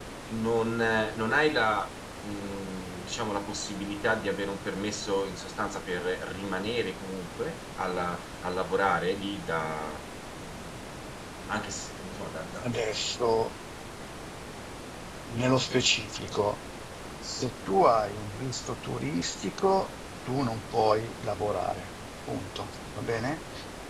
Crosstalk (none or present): none